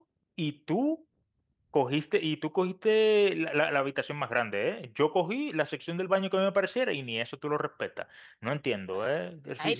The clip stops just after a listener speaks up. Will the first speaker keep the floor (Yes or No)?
No